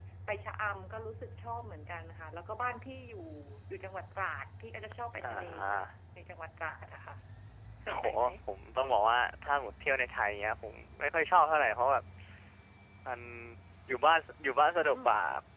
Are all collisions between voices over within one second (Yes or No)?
Yes